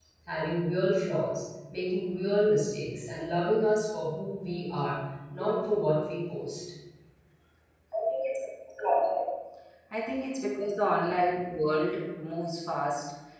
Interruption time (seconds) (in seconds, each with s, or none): none